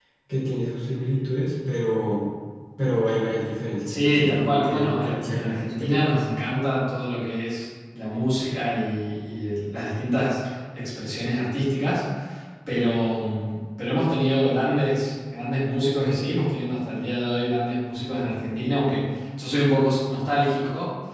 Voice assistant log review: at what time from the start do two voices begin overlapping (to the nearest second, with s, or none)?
4 s